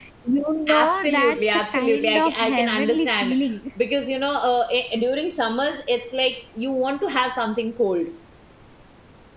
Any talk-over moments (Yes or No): Yes